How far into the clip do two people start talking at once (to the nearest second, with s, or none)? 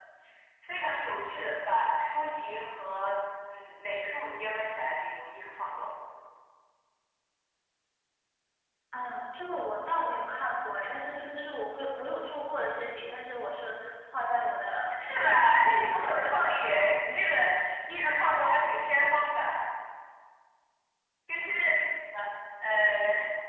15 s